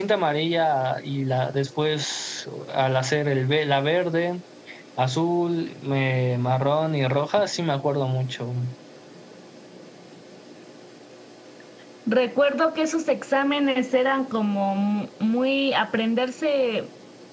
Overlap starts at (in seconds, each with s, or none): none